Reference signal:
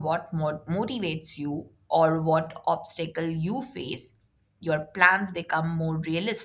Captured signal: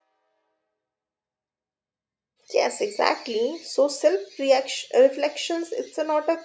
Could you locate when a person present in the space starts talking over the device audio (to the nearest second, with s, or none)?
3 s